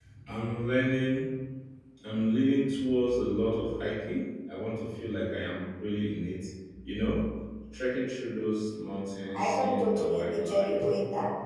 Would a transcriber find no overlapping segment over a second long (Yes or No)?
No